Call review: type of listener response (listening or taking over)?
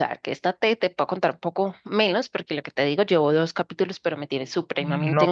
taking over